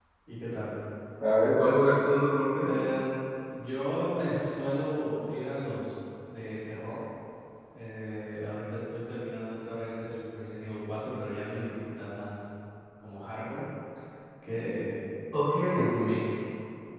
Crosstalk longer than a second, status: none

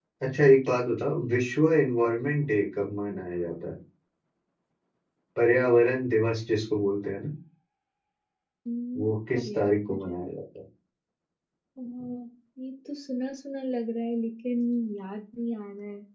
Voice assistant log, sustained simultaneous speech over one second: present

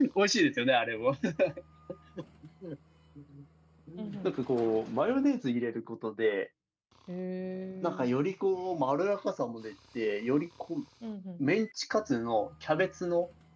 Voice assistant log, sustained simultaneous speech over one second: none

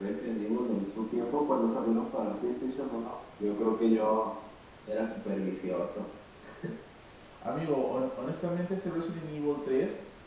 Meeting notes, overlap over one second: none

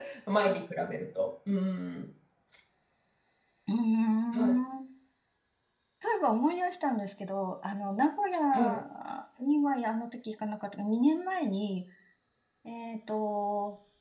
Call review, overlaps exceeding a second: none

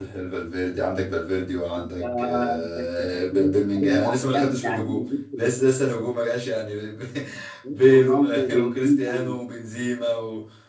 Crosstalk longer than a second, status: present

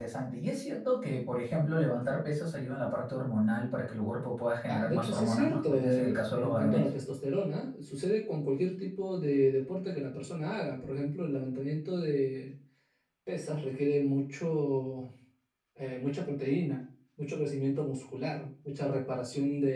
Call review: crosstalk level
present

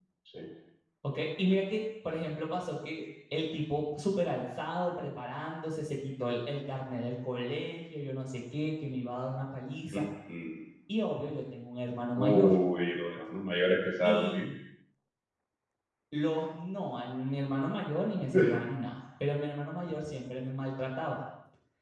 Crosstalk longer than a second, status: none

